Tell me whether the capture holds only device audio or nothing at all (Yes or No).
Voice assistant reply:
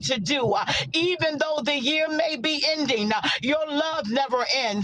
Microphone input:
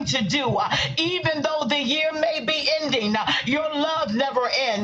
Yes